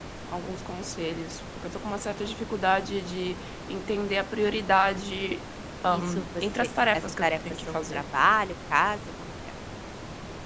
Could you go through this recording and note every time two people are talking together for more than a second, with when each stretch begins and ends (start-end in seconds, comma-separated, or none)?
5.9-8.0